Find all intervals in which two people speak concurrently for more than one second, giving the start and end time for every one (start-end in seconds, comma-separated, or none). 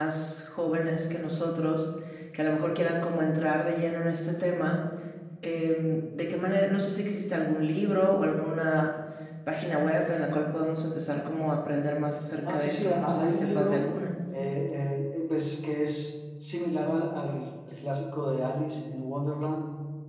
12.5-13.8